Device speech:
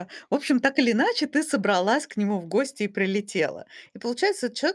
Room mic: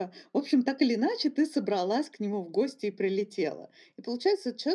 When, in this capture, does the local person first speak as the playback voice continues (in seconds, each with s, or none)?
none